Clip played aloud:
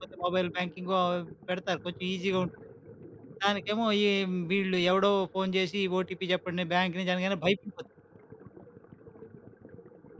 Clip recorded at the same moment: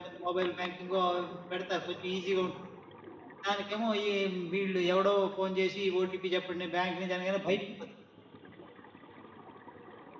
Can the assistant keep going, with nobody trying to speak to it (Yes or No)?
Yes